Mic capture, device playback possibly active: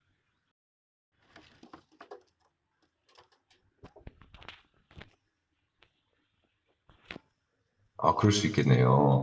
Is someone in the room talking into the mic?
Yes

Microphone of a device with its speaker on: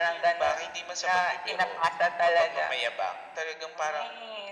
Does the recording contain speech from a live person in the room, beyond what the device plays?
No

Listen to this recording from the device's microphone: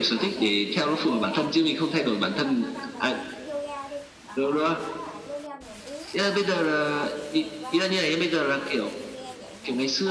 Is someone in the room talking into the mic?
Yes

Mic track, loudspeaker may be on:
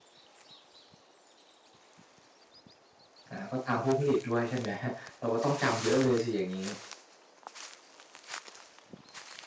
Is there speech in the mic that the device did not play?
Yes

